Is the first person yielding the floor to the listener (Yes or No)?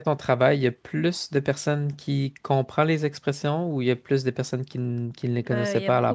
Yes